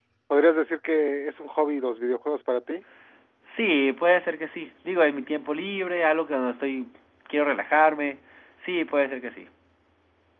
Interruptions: none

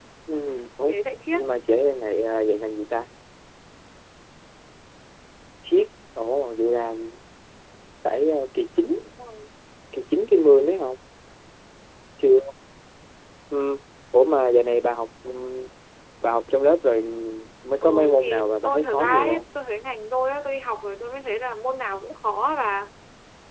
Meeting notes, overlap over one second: present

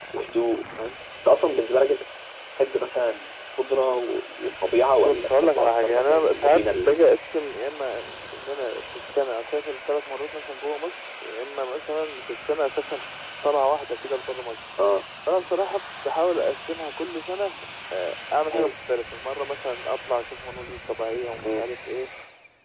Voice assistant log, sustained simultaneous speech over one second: present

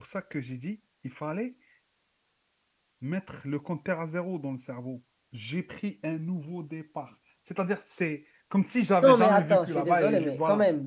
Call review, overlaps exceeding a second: present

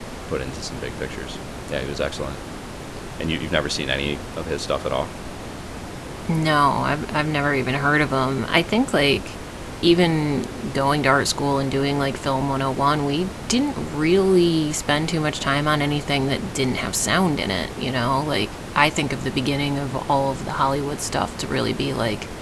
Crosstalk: none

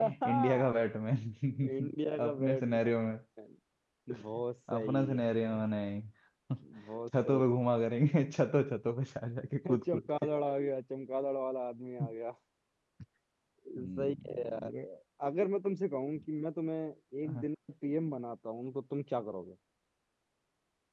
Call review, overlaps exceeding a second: present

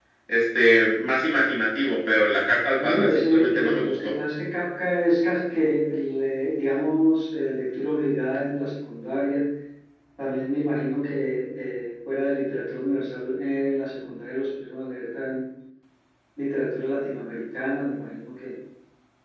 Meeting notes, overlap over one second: present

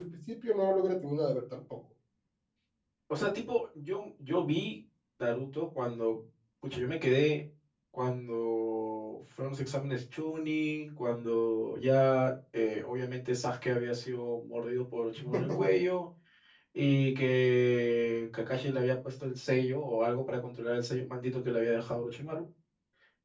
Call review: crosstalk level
none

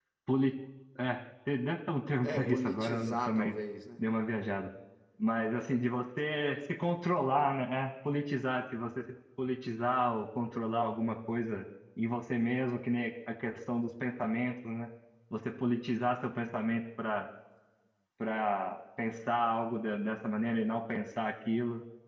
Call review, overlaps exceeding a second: present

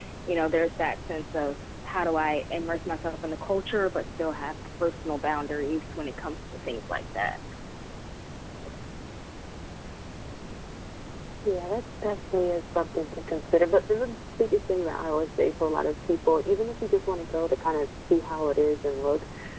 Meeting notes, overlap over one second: none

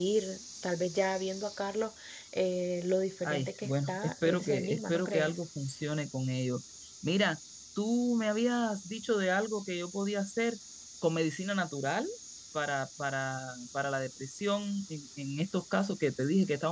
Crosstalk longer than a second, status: present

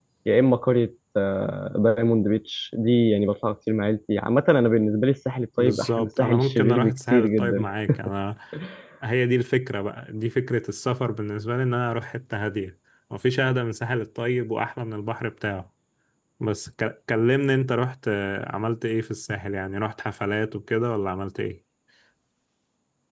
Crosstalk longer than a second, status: present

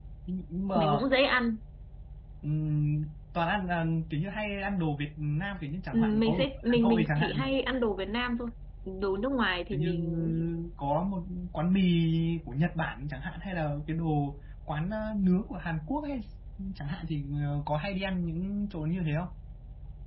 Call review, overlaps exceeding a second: present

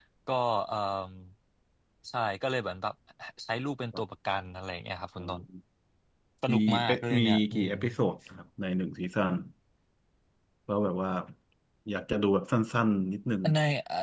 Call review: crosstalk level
present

